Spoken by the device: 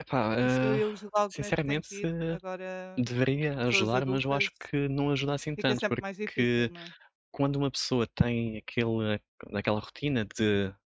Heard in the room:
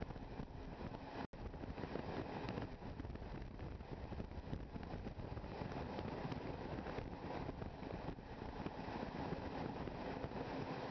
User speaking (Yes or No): No